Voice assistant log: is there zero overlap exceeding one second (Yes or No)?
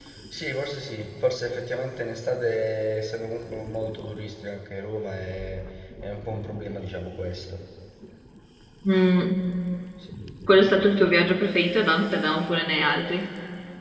Yes